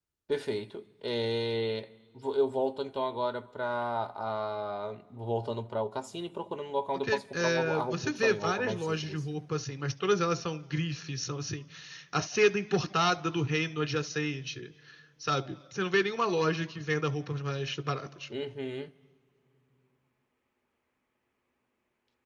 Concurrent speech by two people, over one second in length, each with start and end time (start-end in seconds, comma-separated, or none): 6.9-9.2